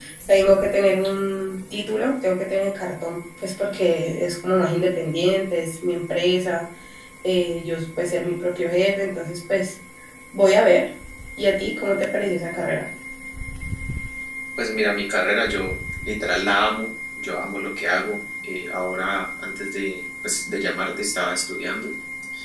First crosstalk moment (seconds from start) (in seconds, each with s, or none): none